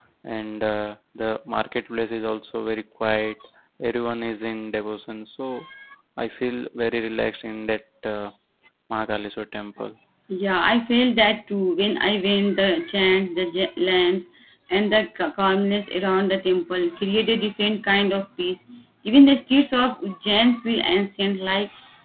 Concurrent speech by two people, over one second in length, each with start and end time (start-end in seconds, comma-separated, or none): none